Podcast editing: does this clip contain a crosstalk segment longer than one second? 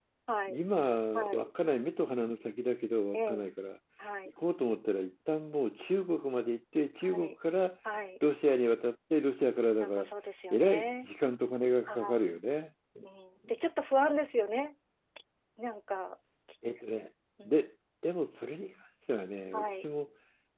No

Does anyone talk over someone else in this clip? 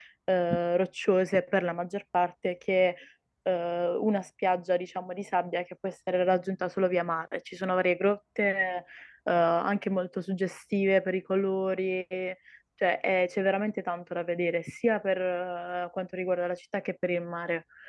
No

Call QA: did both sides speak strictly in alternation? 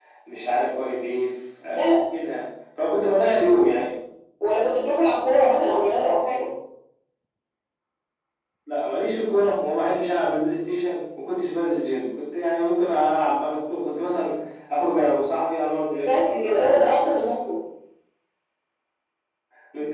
No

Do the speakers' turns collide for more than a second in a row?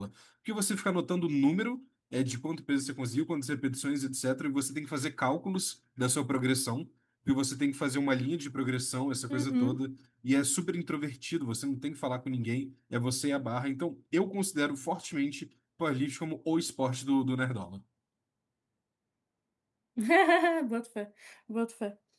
No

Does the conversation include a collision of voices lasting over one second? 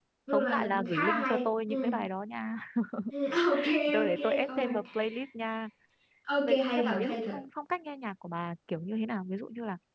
Yes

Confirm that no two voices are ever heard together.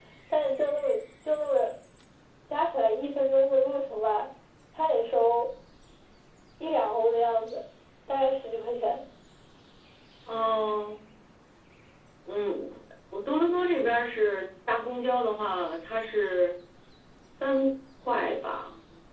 Yes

